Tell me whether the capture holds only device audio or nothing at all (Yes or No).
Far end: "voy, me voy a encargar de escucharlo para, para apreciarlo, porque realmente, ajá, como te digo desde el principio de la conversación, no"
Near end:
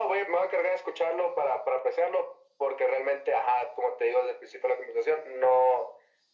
Yes